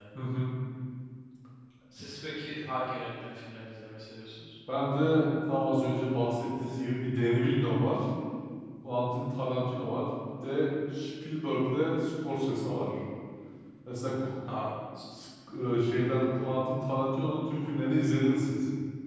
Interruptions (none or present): none